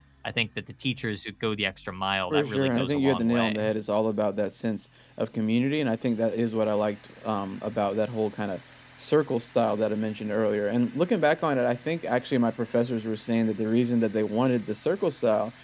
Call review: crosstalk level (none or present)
present